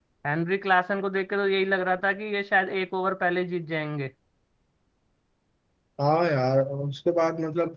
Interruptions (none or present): none